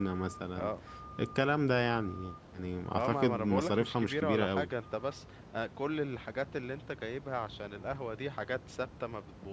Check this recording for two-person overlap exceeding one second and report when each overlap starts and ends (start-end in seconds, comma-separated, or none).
2.9-4.7